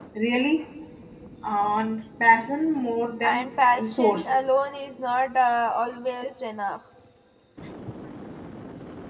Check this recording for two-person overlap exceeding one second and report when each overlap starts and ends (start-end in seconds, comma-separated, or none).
none